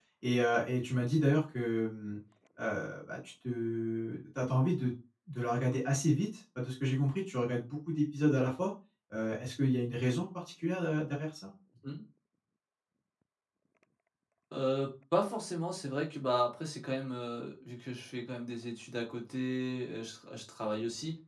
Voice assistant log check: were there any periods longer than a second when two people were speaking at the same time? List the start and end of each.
none

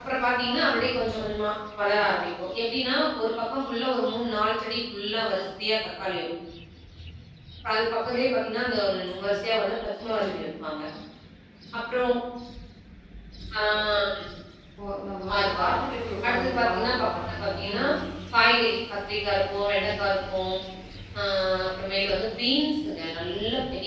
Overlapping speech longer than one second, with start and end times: 16.2-17.8

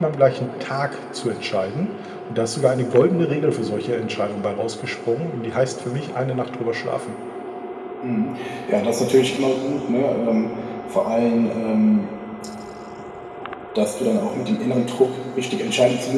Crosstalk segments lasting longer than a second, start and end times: none

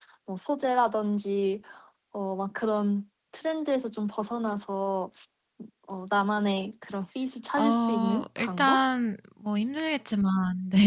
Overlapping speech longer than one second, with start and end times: 7.6-8.8

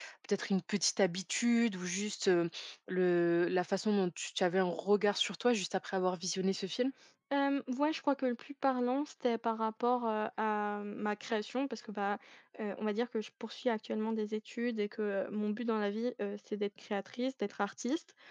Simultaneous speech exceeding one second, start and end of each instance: none

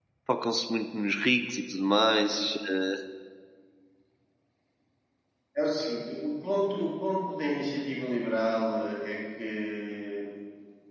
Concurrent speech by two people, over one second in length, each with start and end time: none

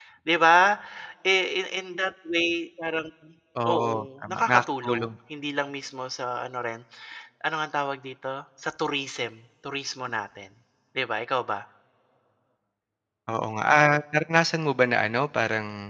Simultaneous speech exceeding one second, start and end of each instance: 3.7-5.1

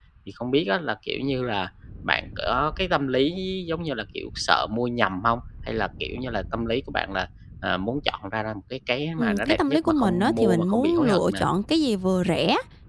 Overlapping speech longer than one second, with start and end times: 9.2-11.4

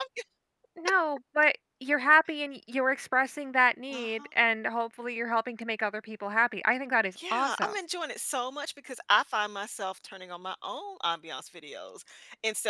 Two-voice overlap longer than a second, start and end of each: none

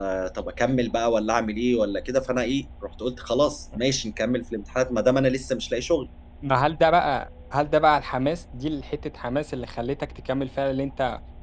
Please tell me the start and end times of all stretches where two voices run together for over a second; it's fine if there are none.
none

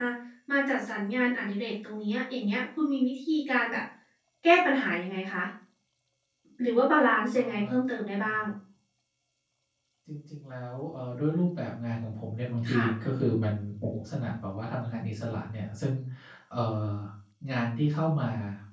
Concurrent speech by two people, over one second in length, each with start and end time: none

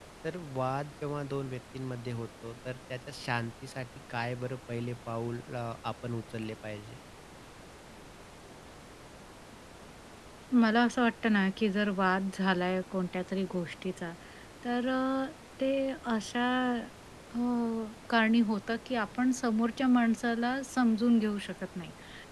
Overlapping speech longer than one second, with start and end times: none

